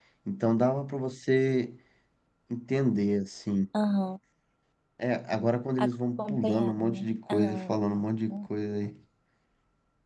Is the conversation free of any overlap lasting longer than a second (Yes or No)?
No